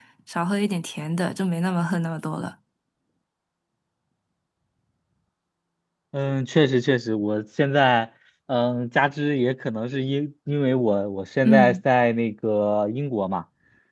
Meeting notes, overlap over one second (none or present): none